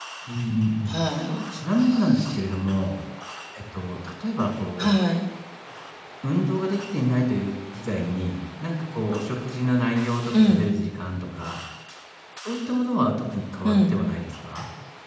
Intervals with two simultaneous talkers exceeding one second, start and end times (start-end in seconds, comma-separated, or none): none